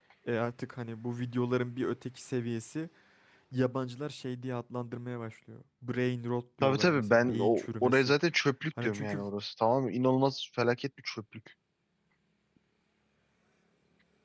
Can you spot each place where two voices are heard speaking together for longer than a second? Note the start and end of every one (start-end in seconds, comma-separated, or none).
6.6-8.1